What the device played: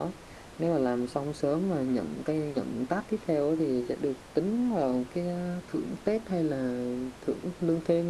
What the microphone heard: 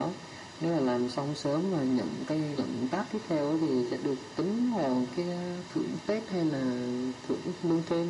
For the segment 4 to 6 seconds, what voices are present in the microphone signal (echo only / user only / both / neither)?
echo only